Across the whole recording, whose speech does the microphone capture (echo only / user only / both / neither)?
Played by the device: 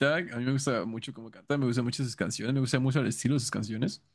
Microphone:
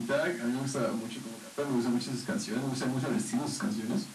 echo only